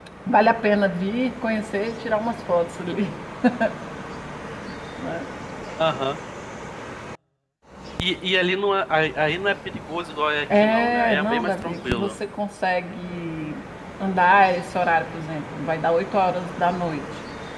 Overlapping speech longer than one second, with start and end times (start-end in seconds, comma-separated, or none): 10.6-12.1